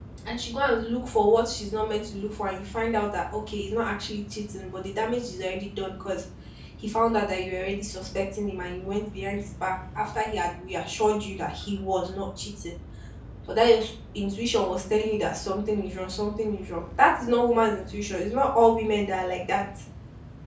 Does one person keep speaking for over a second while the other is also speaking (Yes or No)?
No